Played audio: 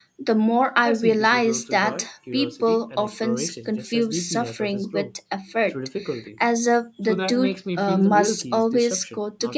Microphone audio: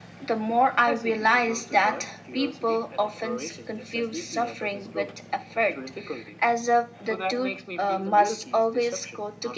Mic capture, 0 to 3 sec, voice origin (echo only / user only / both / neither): echo only